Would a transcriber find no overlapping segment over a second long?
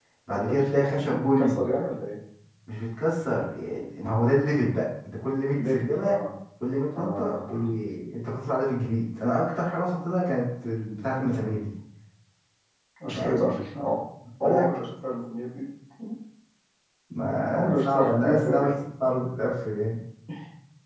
No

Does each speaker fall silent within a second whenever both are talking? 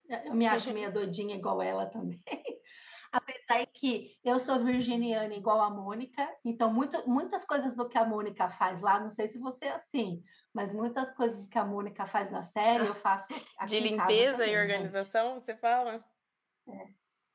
No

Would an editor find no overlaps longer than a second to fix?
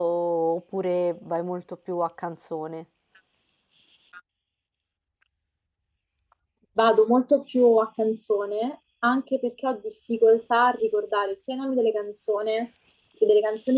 Yes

